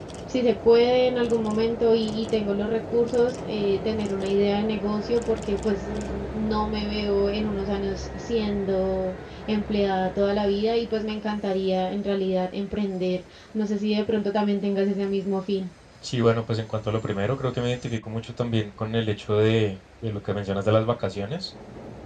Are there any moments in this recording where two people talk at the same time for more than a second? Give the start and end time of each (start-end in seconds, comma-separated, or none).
none